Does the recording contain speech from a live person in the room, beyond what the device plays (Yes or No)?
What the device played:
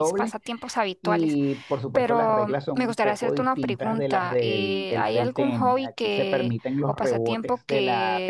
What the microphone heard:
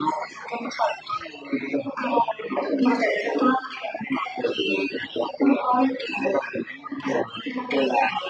No